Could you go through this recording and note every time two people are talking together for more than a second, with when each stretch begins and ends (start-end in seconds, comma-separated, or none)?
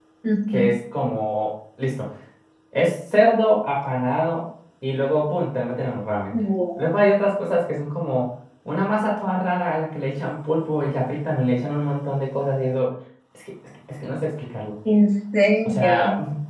none